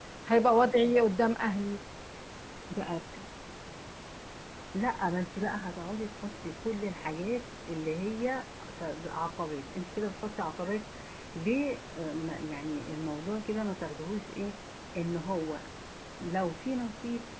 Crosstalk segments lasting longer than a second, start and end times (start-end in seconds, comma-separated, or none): none